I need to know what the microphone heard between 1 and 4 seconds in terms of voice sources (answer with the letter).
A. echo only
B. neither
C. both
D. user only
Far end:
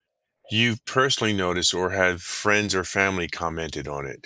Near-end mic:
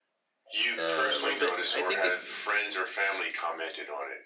C